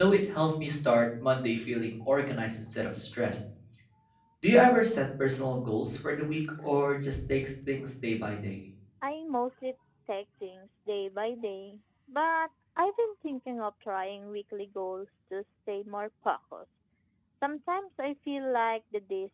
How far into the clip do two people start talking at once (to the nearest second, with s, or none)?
none